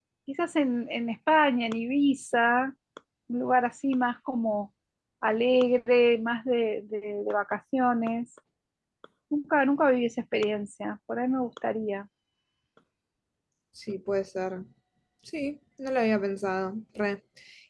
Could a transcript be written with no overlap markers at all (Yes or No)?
Yes